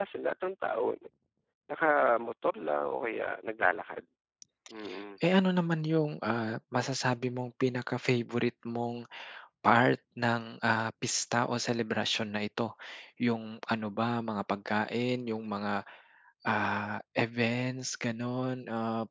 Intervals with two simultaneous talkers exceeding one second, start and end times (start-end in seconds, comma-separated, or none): none